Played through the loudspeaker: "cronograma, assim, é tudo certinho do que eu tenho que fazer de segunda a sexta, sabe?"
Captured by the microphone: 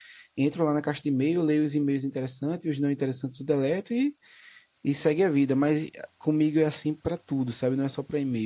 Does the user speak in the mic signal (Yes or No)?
Yes